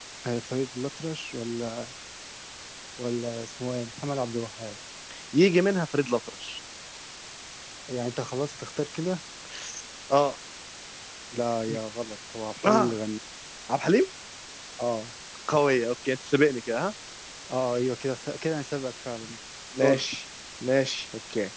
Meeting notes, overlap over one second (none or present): none